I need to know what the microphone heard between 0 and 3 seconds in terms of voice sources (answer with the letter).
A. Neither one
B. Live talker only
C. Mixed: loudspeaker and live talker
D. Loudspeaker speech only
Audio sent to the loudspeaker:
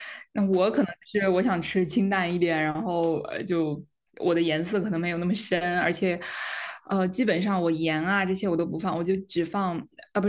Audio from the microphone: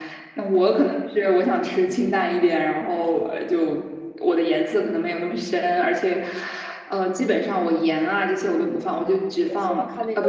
D